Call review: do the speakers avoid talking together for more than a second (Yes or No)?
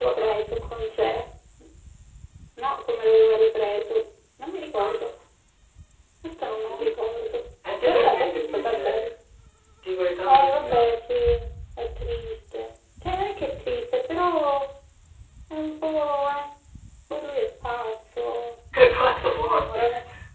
No